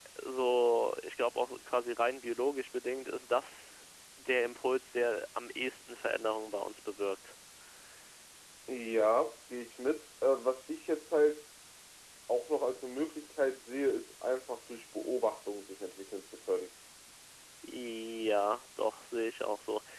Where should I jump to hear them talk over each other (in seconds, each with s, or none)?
none